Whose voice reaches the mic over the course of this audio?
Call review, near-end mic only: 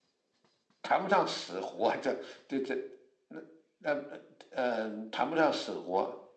echo only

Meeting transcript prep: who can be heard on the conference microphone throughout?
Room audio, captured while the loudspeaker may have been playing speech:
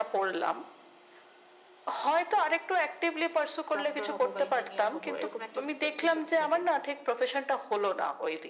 both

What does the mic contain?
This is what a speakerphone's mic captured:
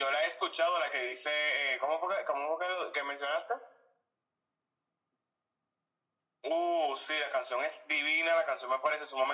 echo only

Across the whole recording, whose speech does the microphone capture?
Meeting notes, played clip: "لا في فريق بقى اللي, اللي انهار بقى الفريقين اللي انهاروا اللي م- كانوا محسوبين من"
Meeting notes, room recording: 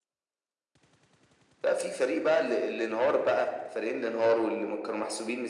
echo only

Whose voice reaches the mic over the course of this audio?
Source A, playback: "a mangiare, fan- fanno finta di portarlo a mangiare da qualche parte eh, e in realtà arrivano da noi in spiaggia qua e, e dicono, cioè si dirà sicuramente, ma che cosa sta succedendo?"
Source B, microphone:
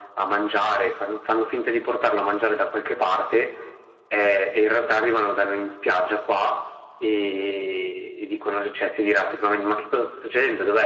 echo only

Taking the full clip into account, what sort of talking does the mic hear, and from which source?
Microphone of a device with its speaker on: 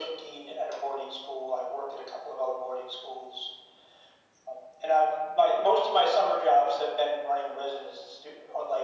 echo only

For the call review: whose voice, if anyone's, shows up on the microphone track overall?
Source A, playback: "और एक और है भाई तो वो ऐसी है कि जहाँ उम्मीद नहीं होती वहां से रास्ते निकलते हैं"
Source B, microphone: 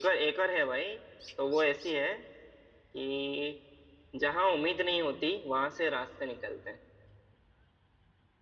echo only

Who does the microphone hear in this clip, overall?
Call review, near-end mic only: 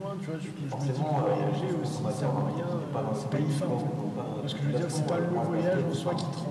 both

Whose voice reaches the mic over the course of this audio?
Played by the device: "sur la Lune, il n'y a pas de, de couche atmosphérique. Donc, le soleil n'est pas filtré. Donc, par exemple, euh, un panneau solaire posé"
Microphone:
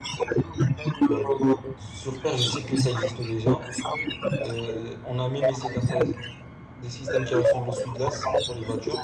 both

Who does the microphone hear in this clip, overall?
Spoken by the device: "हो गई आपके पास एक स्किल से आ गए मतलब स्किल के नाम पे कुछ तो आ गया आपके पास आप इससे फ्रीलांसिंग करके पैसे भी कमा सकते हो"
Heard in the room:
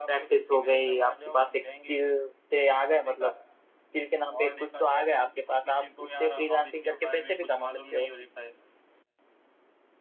both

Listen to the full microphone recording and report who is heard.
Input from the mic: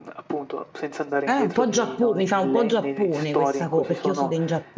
both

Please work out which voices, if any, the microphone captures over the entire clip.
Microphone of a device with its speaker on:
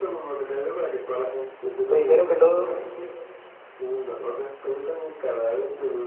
both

